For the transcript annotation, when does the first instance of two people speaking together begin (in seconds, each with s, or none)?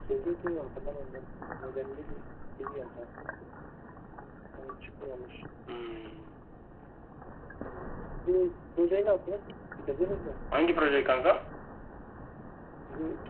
none